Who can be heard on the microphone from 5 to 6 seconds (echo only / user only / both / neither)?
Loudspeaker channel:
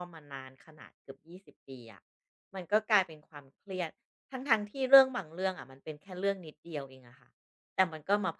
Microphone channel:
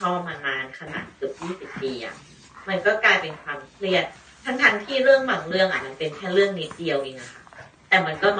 echo only